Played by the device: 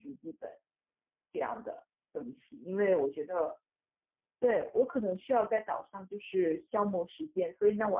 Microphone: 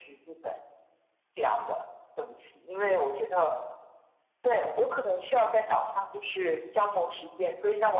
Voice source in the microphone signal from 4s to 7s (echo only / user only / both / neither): echo only